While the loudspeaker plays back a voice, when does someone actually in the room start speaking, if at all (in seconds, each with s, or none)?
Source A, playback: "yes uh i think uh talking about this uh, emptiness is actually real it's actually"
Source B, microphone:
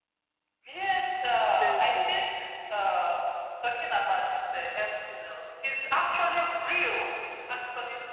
1.4 s